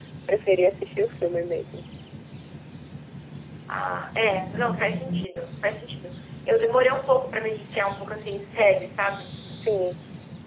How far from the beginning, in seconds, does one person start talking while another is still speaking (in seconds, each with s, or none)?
none